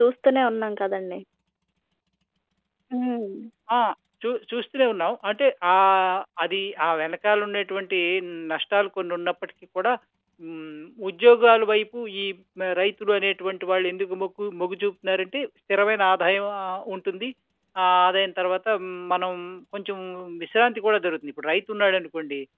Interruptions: none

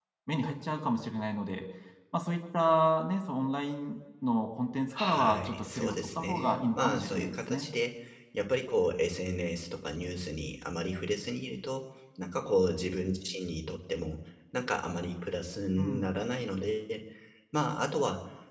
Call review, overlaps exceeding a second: present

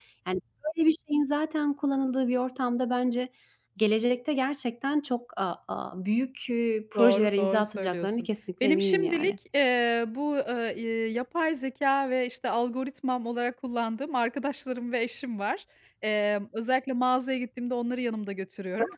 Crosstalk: present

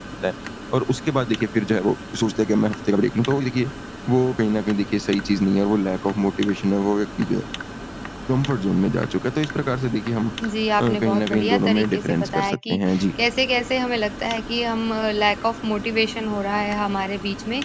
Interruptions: present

